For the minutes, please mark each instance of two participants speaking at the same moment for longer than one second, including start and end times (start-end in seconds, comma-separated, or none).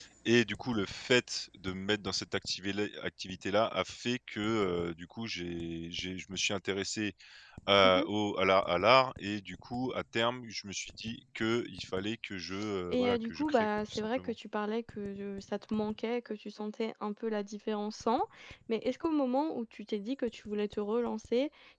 12.9-14.3